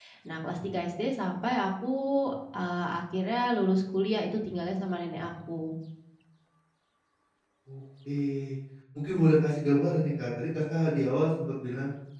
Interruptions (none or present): none